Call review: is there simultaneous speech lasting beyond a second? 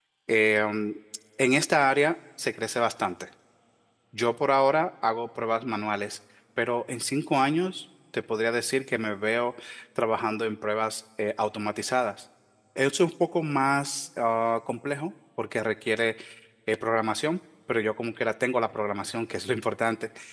No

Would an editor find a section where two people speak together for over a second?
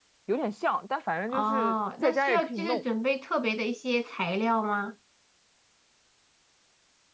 Yes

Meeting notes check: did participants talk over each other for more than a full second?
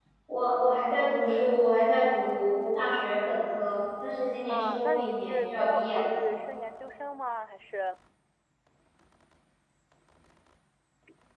Yes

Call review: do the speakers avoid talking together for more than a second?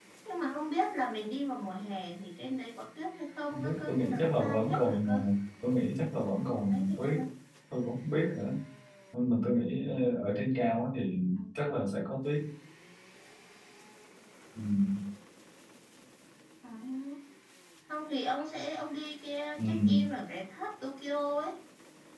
No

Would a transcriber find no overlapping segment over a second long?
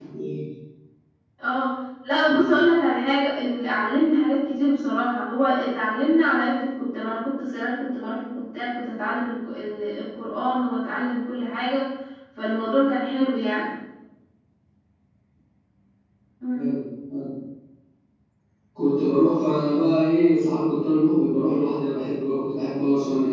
Yes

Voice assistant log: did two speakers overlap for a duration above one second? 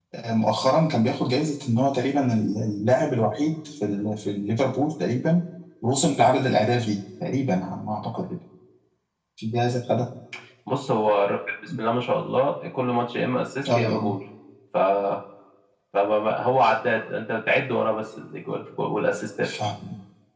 No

